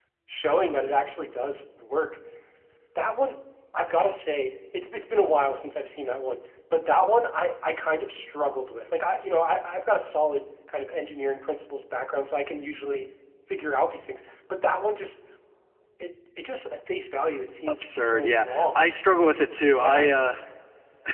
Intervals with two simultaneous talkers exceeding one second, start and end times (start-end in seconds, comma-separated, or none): 17.7-18.9